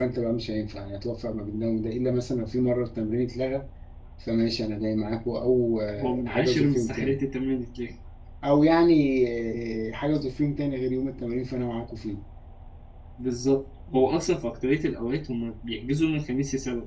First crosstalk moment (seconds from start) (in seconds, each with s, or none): 6.0 s